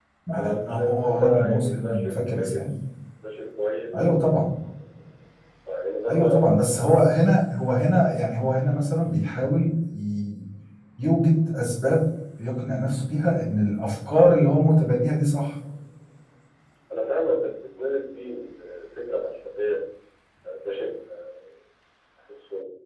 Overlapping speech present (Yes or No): Yes